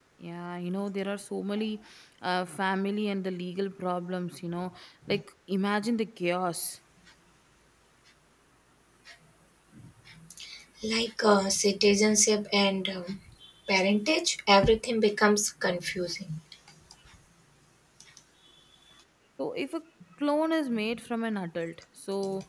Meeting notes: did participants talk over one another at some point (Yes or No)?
No